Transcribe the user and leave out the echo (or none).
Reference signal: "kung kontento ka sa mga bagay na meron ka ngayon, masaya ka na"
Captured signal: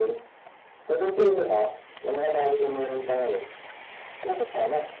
Mm.